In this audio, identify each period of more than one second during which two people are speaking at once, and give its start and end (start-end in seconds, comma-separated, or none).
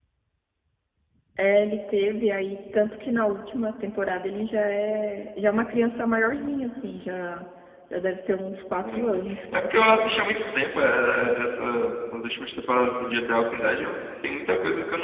8.8-10.2